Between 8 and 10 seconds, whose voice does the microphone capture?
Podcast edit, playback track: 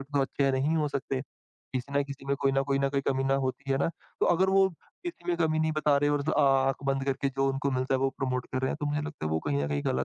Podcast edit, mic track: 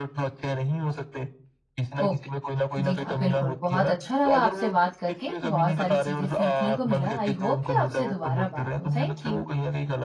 both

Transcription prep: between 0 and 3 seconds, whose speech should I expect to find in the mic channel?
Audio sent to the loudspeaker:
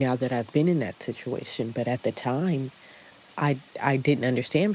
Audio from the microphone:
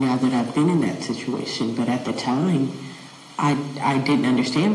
echo only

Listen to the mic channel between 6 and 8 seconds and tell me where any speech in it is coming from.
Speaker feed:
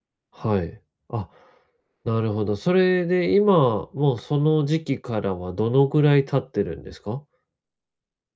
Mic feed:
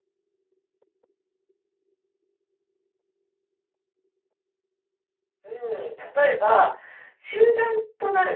user only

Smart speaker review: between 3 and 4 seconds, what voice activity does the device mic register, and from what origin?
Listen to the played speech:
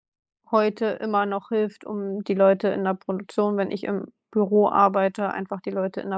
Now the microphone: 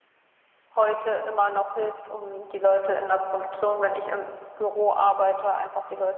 echo only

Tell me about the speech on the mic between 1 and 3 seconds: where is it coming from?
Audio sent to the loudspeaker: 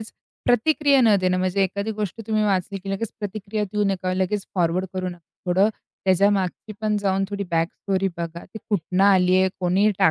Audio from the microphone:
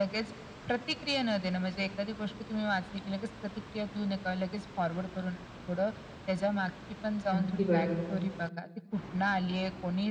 echo only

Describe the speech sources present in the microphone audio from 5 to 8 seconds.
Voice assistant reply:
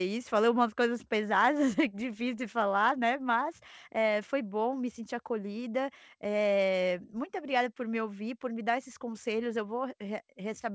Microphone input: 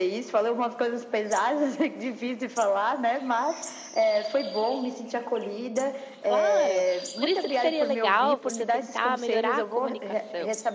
both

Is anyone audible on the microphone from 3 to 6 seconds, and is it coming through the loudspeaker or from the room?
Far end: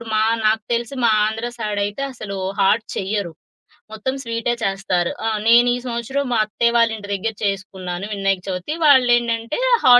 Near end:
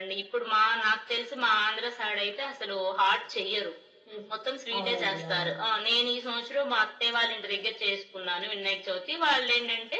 both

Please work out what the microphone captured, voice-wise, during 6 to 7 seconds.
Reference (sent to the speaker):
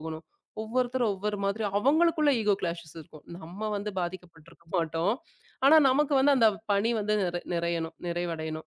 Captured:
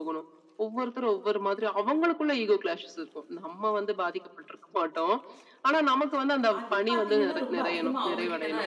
both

